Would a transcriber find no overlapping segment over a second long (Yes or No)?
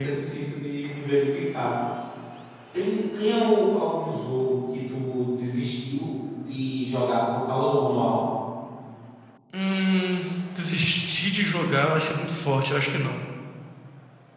Yes